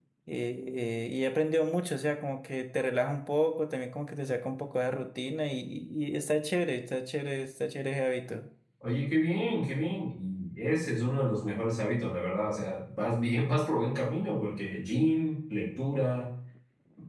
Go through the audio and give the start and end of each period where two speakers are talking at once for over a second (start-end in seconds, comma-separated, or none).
none